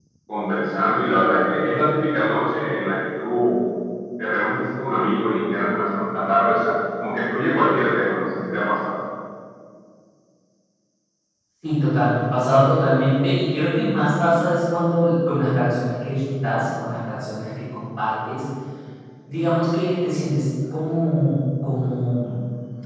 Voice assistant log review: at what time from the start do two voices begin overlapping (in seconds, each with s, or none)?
none